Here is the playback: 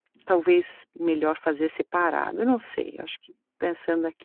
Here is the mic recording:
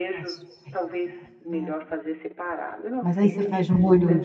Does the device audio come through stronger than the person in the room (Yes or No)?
No